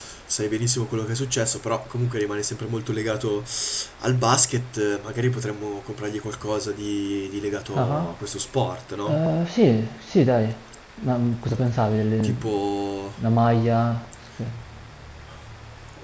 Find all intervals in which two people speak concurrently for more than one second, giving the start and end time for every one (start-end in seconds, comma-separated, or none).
none